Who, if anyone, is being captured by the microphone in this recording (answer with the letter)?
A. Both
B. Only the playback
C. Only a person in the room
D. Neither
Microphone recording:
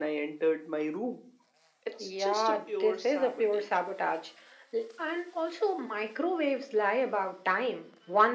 B